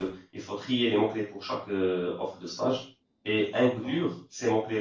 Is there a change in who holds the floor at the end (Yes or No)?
No